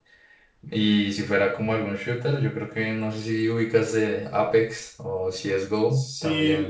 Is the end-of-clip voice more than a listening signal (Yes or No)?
Yes